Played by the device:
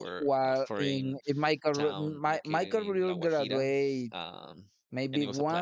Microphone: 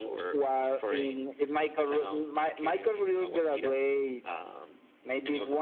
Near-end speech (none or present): none